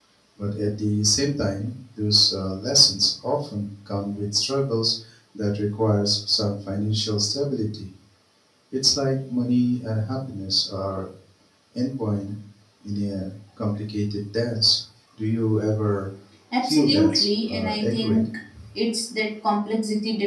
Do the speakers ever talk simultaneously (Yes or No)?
Yes